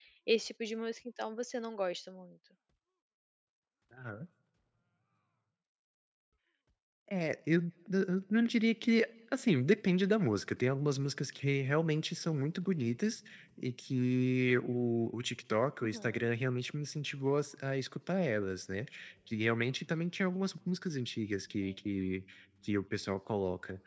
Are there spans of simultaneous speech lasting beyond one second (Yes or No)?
No